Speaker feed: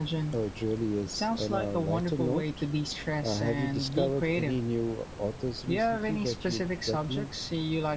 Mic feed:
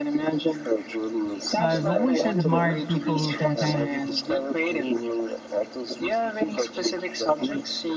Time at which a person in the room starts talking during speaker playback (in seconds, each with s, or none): 1.6 s